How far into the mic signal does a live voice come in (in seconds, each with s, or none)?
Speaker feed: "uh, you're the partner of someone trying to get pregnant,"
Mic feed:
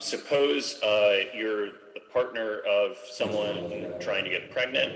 3.1 s